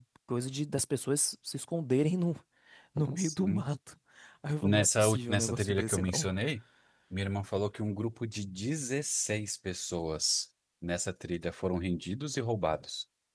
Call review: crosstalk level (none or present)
present